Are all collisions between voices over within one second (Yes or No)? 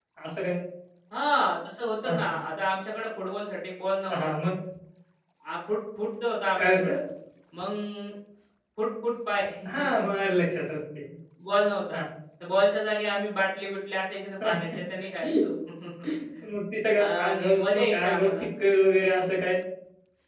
No